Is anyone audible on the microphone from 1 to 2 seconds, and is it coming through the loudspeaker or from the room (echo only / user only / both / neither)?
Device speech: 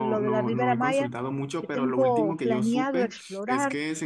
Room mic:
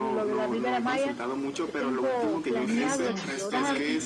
echo only